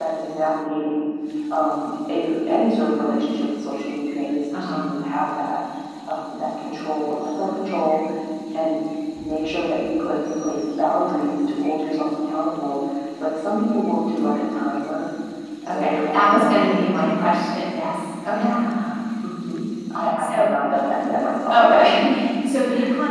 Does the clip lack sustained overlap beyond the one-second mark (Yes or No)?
No